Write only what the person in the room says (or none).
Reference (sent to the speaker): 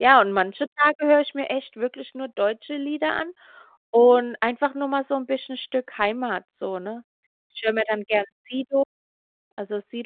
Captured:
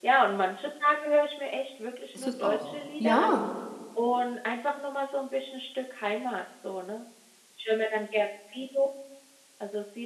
Ist es auch. Ja,